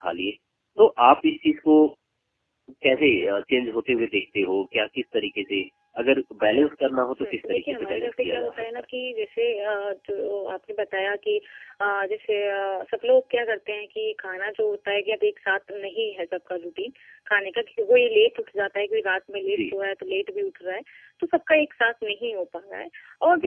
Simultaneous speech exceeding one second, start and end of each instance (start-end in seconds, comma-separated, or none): 7.2-8.6